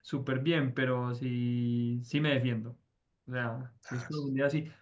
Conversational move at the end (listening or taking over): listening